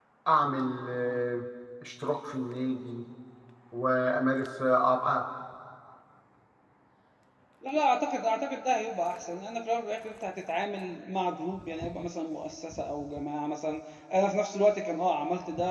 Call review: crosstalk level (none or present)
none